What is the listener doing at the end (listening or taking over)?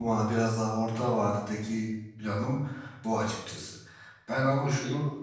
listening